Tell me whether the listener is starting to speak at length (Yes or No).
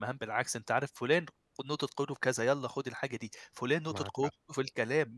No